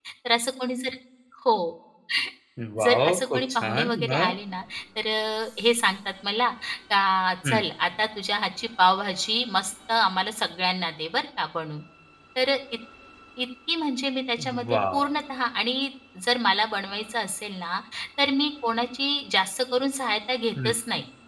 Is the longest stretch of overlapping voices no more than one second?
No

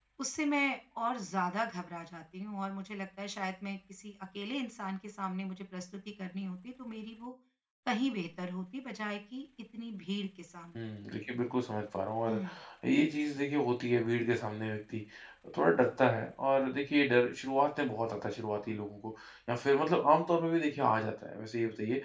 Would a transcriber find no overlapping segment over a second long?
Yes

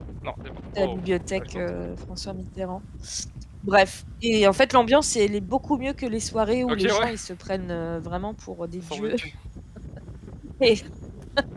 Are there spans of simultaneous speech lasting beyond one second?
No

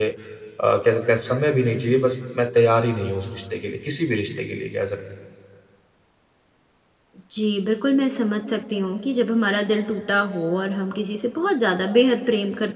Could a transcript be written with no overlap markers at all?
Yes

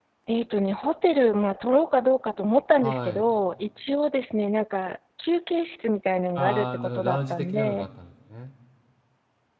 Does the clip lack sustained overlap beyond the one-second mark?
No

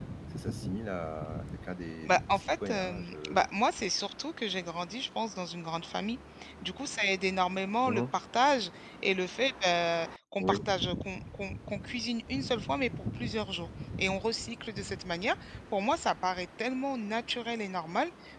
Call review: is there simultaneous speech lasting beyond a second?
Yes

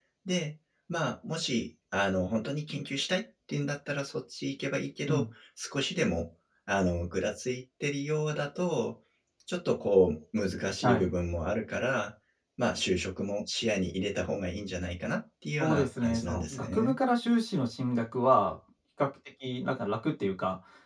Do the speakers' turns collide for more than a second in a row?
Yes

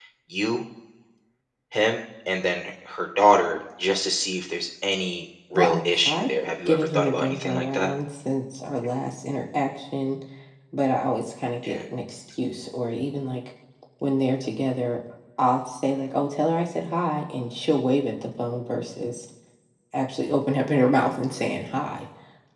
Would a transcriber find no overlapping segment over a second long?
No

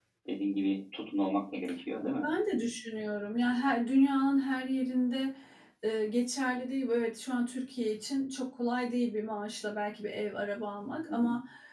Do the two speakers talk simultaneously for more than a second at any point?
No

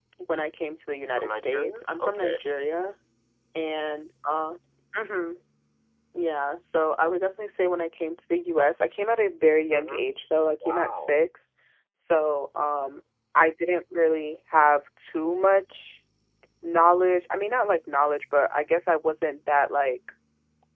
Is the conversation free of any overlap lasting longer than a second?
No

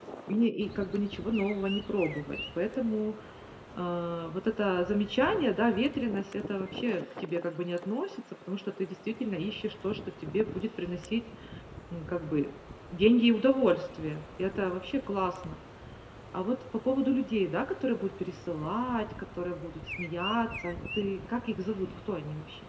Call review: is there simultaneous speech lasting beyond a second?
No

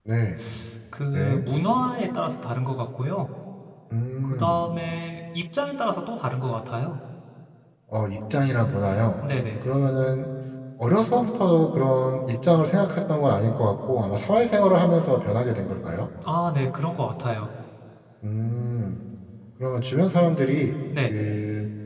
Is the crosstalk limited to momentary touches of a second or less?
Yes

